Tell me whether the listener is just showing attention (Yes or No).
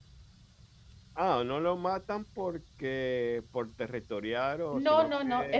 No